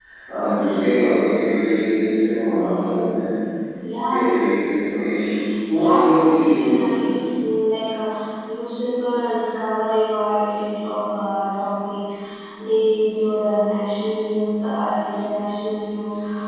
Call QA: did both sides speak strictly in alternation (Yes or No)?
No